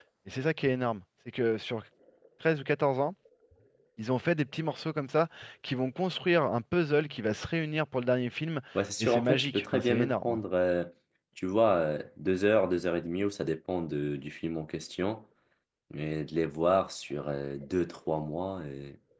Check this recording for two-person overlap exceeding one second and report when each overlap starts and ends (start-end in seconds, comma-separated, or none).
9.0-10.4